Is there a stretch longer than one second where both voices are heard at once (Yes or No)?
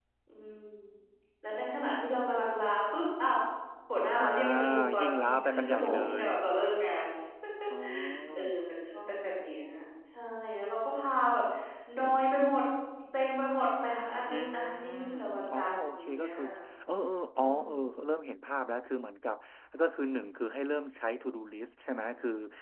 Yes